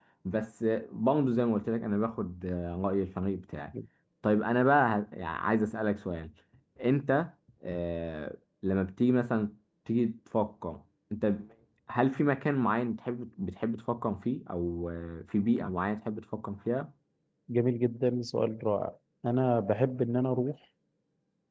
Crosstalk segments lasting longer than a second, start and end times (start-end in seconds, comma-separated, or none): none